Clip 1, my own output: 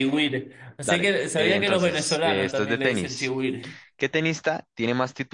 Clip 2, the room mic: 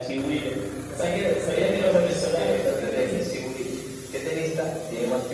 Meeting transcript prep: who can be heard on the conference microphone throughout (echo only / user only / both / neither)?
echo only